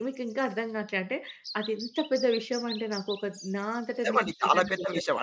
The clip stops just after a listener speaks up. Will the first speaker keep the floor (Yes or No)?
No